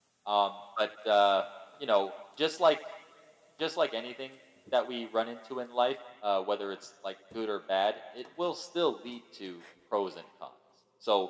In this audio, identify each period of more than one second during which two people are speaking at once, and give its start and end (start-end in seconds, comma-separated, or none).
none